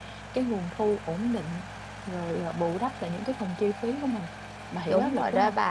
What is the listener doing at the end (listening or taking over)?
taking over